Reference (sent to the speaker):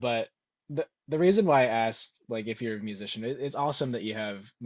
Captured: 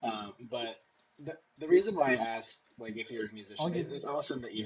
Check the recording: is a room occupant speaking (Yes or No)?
Yes